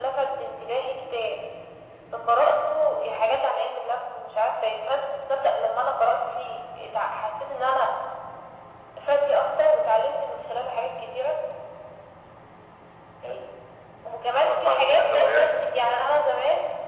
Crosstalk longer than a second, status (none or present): present